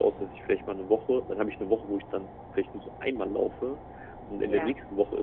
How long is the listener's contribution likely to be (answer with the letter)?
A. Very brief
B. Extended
A